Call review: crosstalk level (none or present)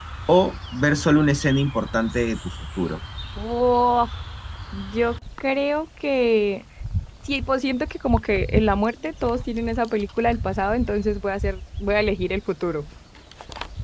none